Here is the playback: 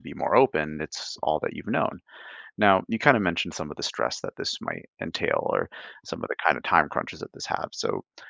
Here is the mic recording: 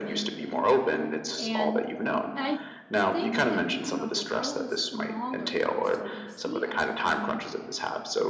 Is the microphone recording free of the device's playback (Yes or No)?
No